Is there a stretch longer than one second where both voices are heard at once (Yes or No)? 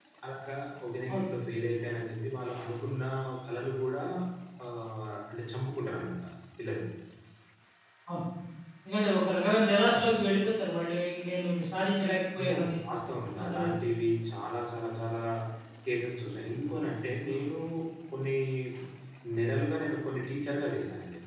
No